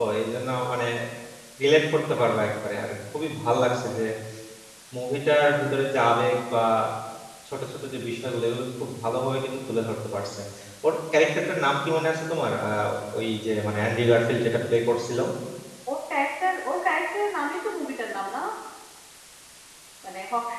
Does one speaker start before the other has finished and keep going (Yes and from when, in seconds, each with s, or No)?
No